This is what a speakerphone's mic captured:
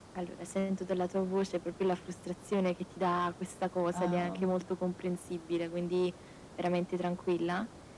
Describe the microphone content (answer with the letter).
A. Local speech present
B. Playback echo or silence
A